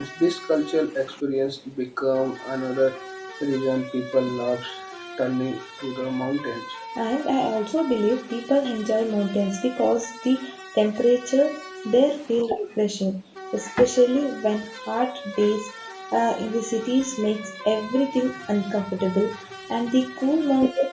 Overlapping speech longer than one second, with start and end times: none

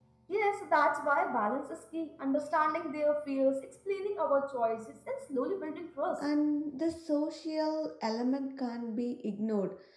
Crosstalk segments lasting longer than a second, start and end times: none

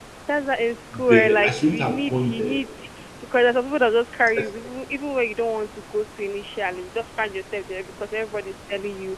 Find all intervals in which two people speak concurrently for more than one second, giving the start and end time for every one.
1.1-2.6

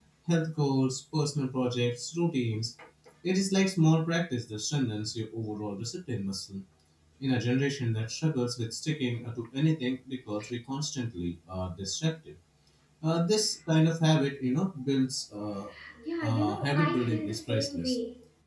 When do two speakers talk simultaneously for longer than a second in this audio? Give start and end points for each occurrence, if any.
16.2-18.0

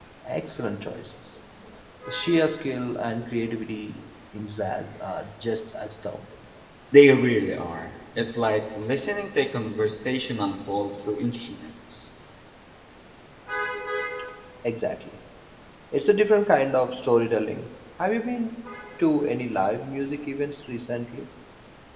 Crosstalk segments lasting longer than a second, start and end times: none

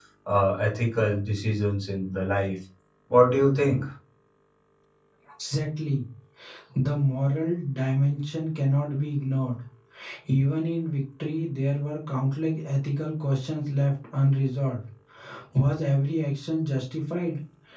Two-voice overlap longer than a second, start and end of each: none

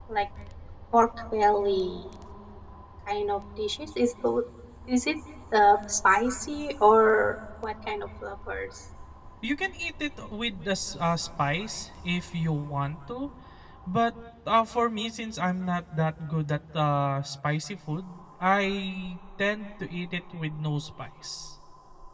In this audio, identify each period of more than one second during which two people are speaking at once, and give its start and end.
none

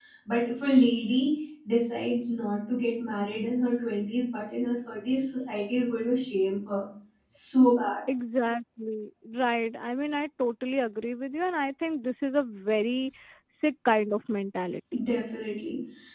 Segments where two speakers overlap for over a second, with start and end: none

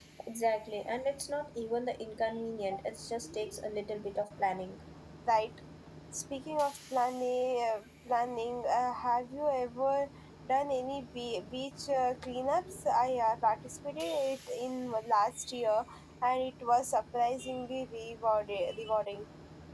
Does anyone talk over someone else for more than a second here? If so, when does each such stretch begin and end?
none

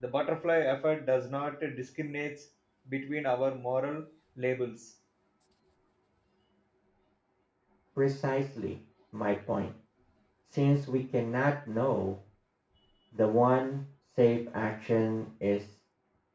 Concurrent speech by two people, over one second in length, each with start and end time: none

